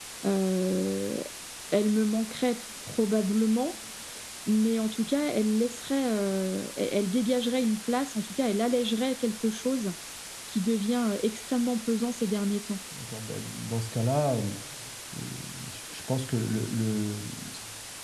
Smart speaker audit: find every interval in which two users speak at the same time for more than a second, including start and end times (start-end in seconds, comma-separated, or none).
none